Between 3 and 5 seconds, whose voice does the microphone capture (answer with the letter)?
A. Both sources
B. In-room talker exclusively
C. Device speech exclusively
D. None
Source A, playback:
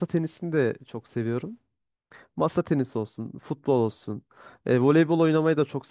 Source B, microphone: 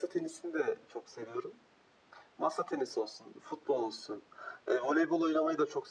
C